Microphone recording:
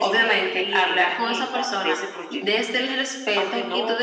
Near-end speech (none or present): none